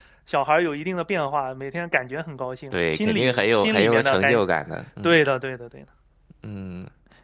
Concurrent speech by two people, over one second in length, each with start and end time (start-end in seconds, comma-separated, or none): 2.7-4.4